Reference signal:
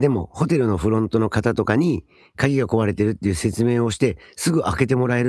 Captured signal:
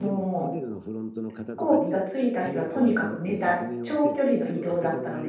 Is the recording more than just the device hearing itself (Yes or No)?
Yes